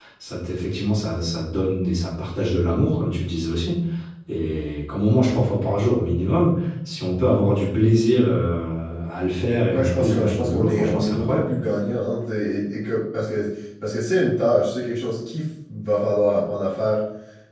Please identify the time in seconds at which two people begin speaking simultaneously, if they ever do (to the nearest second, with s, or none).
10 s